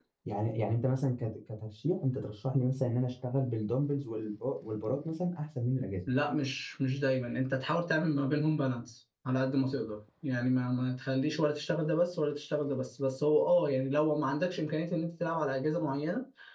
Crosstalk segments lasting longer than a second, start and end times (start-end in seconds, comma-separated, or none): none